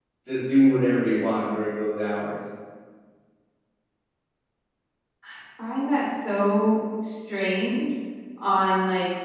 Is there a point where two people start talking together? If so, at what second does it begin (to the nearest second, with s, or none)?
none